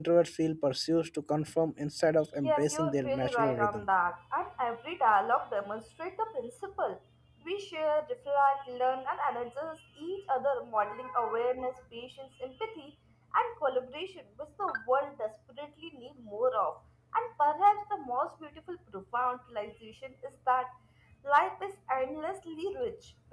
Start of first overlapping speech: 2 s

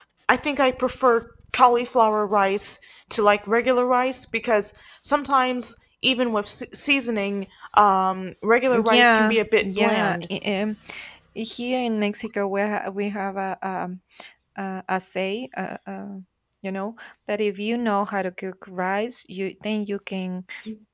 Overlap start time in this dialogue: 9 s

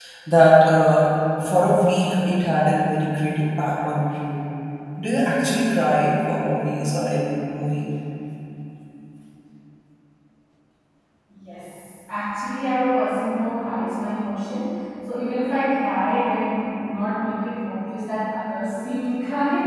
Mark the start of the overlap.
none

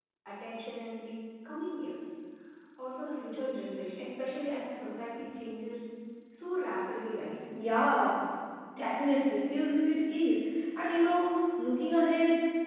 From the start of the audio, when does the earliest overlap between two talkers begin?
none

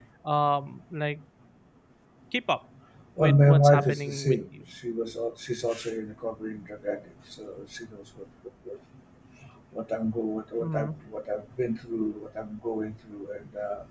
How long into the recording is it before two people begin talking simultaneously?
3 s

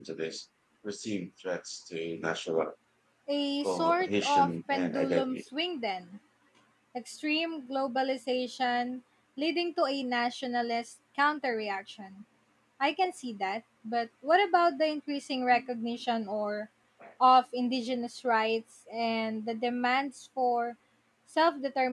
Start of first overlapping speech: 4 s

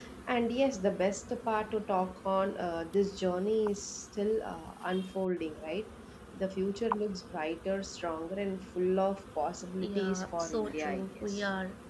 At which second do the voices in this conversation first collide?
10 s

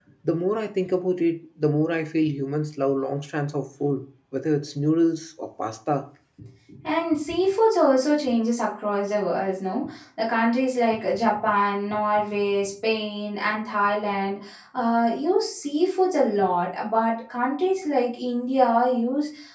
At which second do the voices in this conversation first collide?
none

